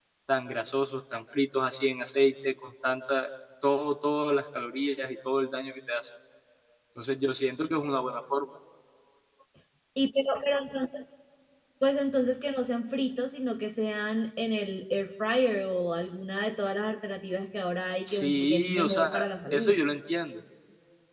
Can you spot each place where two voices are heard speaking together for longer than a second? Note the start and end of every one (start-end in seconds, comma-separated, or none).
18.1-19.8